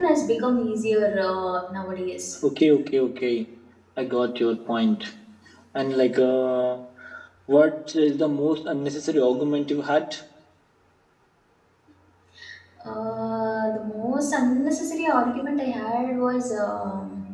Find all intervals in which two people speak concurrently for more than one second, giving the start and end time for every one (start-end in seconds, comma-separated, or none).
none